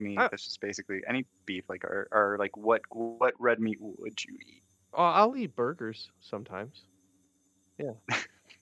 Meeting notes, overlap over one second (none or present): none